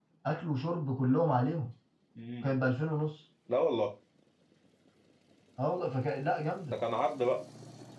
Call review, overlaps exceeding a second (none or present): none